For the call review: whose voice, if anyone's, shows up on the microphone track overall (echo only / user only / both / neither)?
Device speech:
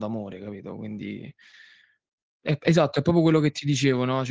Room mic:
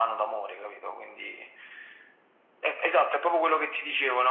echo only